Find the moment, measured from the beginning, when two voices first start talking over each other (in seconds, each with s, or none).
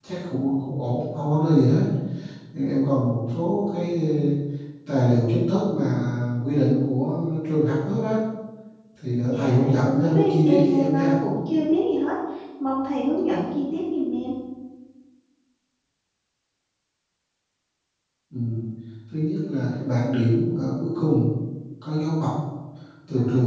9.1 s